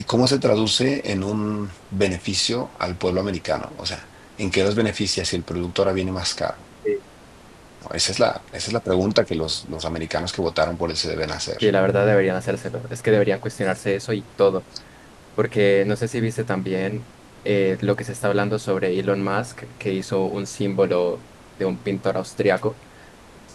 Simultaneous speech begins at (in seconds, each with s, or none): none